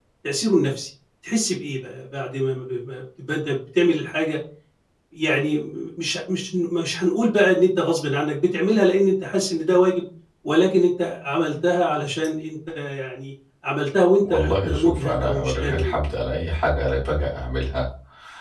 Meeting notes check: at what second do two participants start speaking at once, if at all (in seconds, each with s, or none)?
14.2 s